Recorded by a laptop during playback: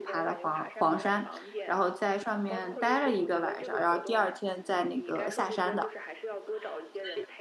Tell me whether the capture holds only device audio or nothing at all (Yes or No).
No